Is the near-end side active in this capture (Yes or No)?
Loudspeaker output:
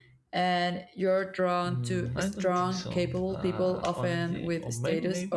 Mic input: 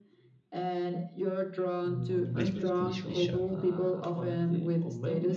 Yes